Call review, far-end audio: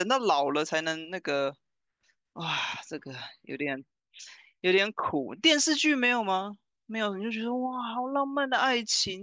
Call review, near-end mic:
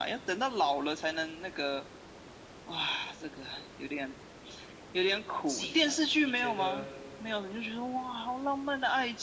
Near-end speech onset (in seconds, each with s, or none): 5.5 s